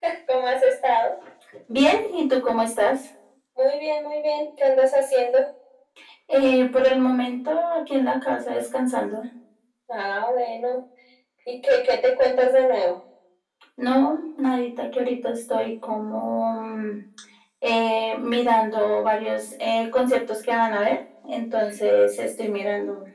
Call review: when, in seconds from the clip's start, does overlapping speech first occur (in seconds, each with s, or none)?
none